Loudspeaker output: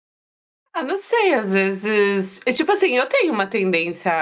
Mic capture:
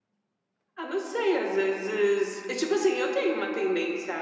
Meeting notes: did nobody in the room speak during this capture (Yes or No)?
Yes